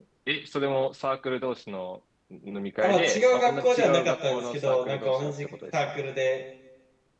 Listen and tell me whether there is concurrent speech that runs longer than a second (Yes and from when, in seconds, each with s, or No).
Yes, from 2.8 s